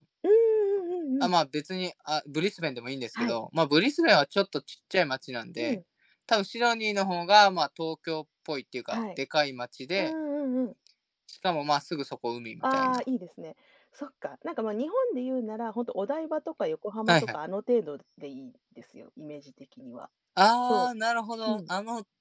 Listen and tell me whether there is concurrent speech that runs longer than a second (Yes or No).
No